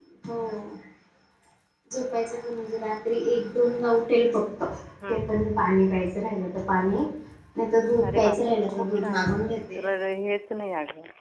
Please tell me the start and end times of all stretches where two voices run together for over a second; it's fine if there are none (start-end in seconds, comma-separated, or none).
8.1-9.9